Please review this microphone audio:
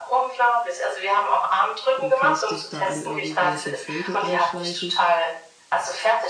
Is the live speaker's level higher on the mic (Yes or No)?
No